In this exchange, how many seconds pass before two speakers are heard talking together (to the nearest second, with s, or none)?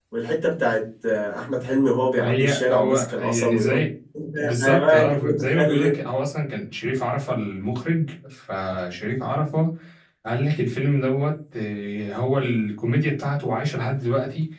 2 s